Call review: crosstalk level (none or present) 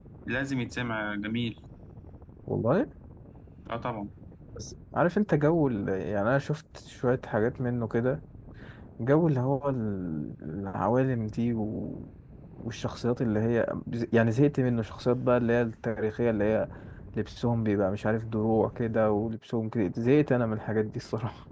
none